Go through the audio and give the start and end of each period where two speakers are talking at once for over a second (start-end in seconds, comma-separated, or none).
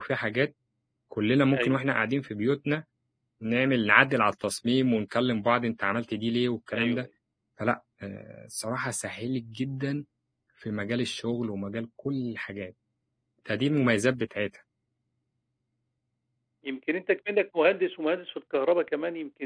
none